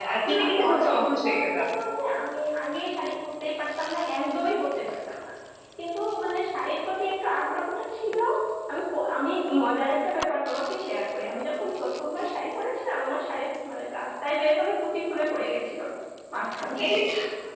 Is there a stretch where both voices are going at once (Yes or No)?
Yes